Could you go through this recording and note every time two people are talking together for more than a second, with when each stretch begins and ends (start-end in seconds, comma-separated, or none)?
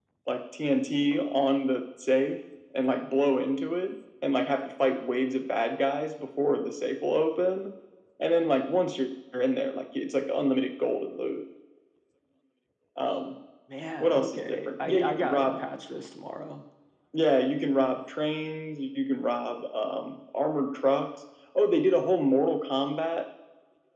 14.0-15.6